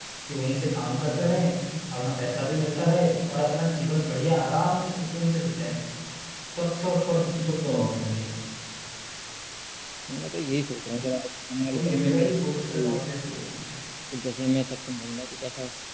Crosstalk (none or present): present